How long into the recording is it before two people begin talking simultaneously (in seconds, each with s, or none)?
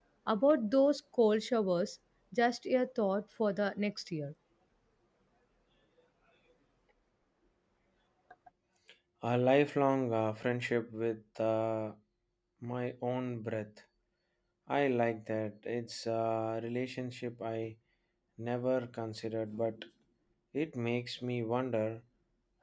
none